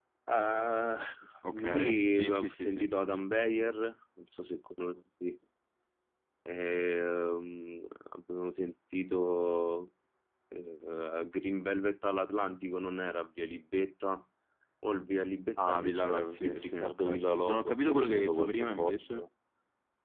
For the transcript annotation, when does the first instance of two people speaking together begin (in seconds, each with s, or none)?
1.5 s